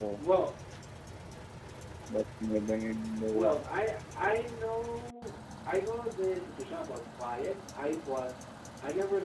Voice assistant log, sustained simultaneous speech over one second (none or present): none